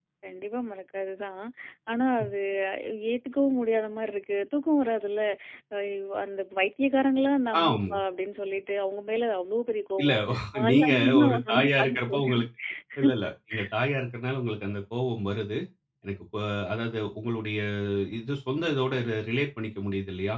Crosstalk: present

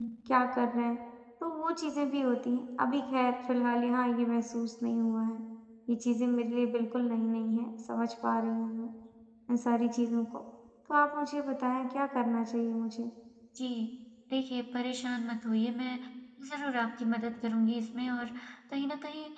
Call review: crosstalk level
none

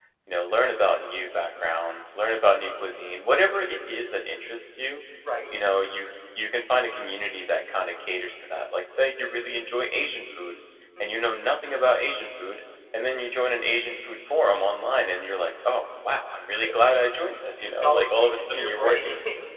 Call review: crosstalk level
present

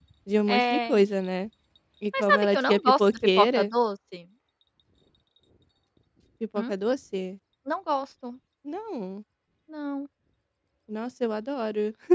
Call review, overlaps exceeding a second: present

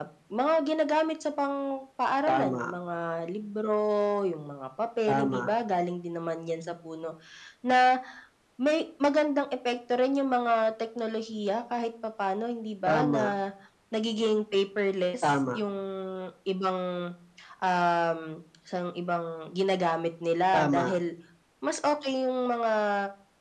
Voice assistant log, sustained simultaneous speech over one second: none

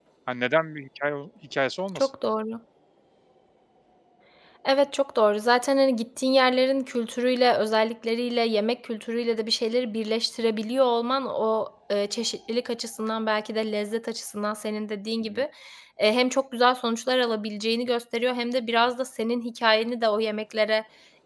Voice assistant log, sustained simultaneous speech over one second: none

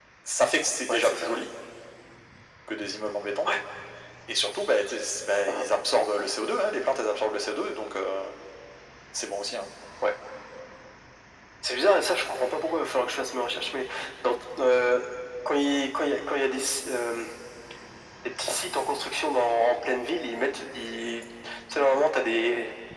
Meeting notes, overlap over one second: none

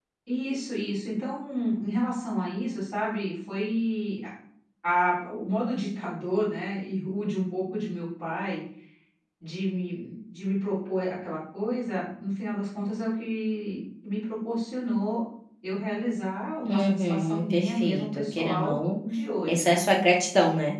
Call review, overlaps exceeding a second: present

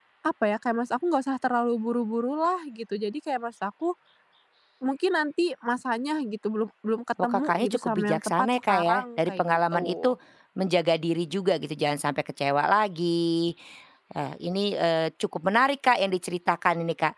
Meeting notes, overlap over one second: present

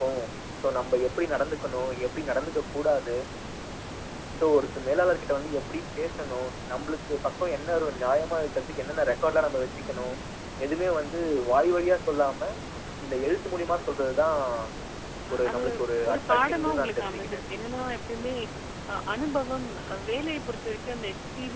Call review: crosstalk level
present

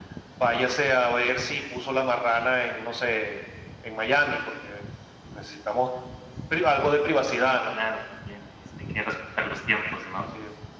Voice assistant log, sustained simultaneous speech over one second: none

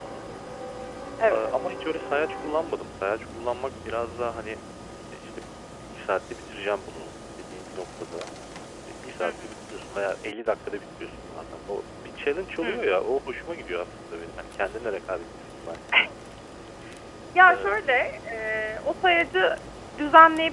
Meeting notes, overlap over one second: none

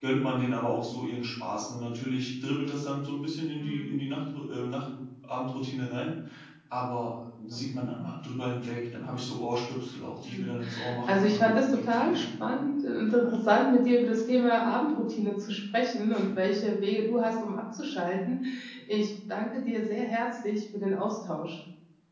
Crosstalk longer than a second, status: present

